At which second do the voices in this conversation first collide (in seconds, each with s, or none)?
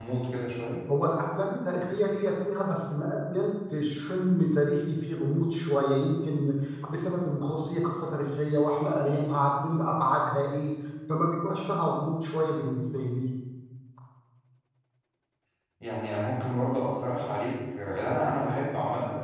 none